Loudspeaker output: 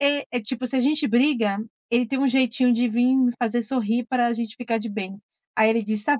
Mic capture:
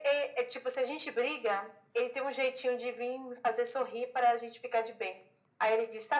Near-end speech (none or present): none